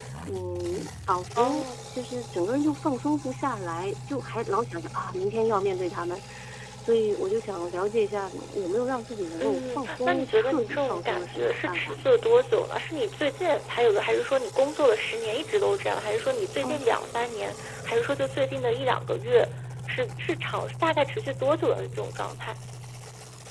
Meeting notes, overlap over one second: present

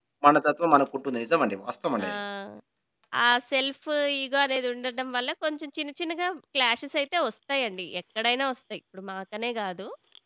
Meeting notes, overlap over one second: none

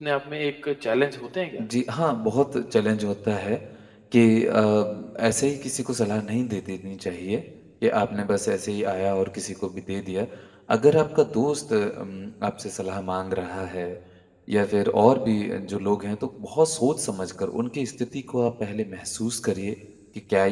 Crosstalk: none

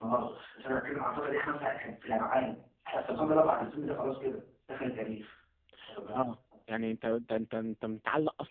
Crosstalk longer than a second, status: none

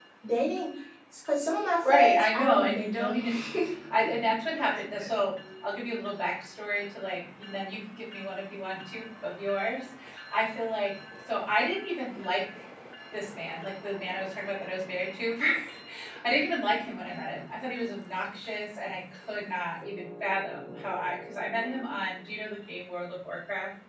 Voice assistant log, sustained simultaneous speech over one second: present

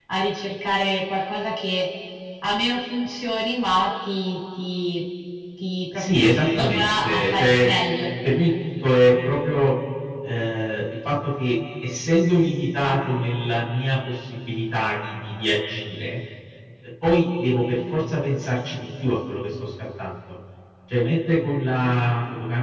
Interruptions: present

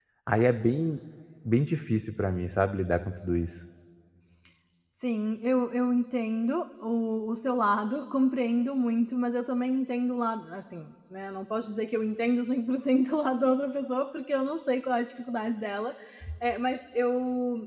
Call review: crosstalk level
none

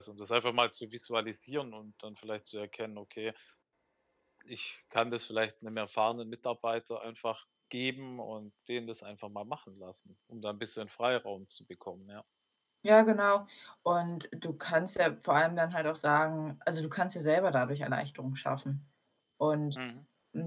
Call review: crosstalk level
none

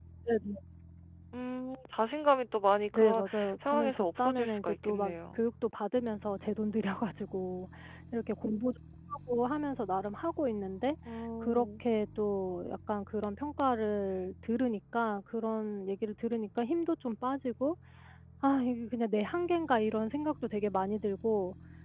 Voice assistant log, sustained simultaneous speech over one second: present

